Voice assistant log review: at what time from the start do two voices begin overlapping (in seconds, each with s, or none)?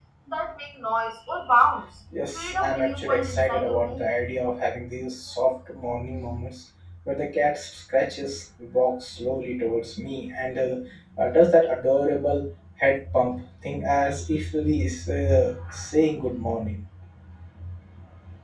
2.1 s